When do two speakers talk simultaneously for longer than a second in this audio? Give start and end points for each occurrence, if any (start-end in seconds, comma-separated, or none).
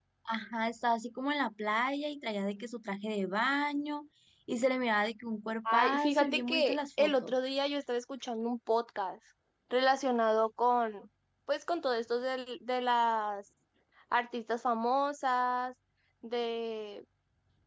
5.7-7.3